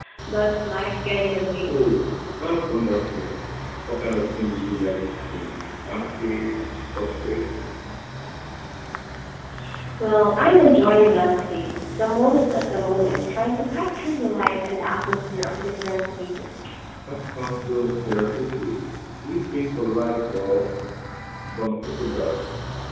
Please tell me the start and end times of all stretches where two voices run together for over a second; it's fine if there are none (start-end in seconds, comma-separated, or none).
none